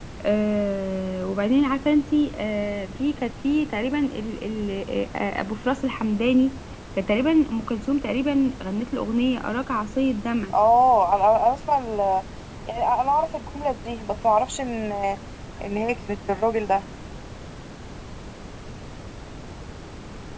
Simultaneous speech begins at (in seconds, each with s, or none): none